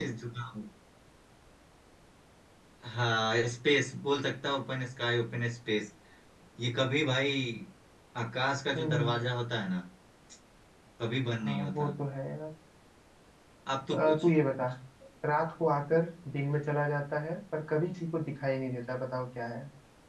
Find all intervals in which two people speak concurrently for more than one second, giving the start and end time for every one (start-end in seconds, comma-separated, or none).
none